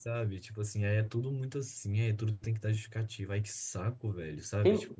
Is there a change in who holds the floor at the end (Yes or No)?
Yes